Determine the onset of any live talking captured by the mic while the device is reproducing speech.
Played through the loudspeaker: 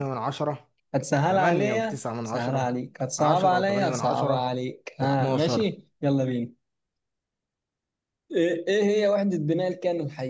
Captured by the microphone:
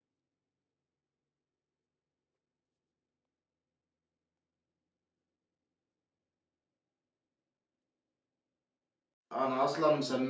9.3 s

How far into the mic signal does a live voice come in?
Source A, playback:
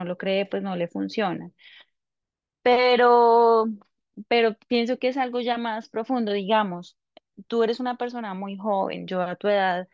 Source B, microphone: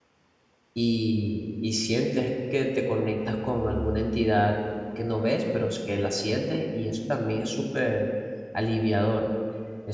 0.7 s

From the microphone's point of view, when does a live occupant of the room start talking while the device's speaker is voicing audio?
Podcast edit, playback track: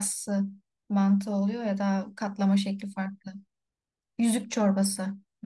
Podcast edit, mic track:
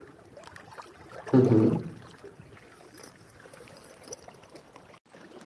1.3 s

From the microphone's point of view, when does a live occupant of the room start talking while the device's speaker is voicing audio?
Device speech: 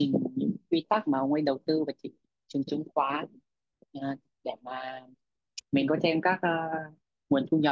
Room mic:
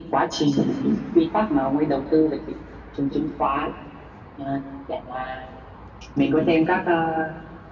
none

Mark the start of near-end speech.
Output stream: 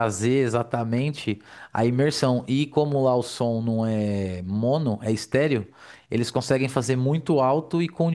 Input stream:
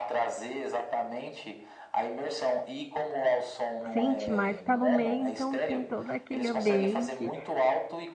3.9 s

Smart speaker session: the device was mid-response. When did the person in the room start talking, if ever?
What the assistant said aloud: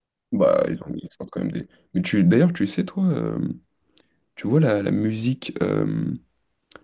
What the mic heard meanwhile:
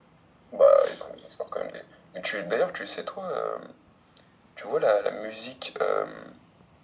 none

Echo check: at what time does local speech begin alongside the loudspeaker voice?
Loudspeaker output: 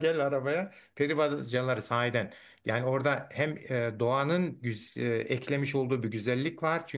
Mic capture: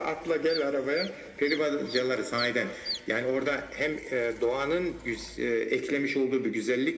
none

